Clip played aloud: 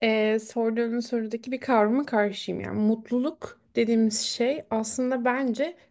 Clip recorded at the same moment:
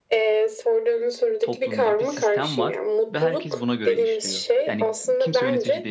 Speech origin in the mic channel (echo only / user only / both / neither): both